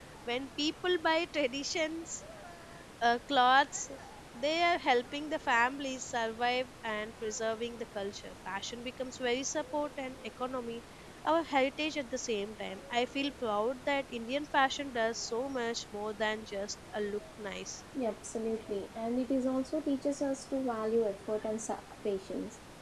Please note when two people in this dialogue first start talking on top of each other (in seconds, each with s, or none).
none